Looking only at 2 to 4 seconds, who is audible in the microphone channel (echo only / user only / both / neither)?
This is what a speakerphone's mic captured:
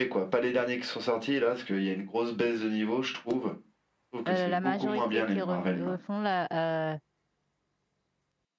echo only